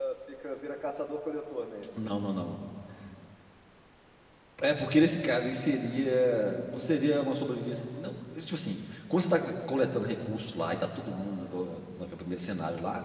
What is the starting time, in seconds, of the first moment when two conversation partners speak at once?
none

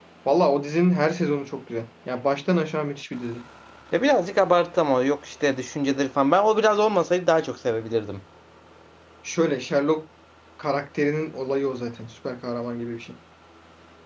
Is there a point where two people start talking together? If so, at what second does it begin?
none

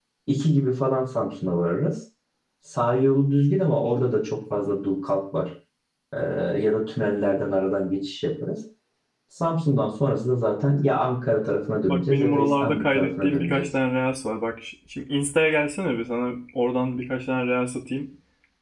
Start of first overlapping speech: 11.9 s

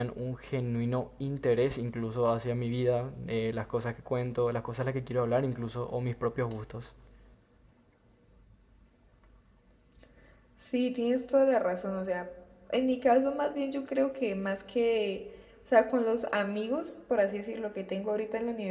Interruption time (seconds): none

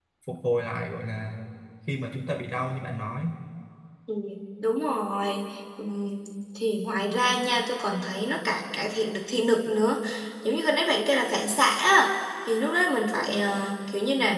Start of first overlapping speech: none

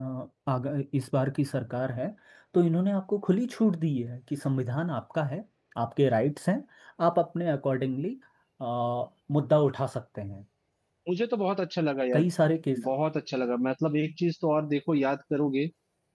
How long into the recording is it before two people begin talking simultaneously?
none

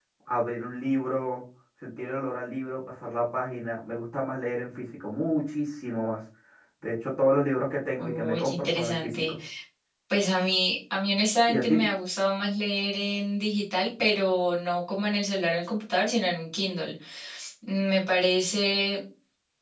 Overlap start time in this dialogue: 8.0 s

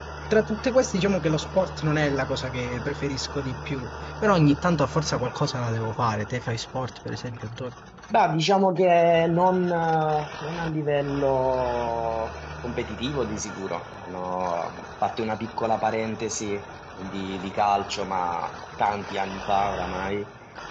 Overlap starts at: none

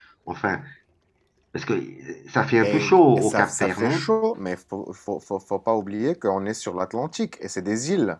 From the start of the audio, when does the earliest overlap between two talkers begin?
2.6 s

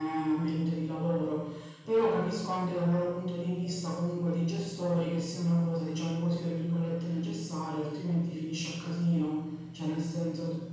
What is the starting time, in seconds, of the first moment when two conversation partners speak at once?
none

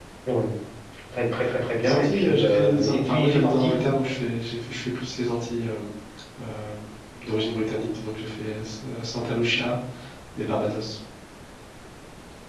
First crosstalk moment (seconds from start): 1.8 s

